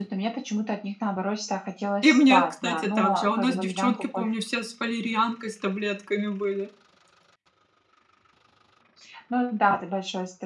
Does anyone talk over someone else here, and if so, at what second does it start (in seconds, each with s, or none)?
2.0 s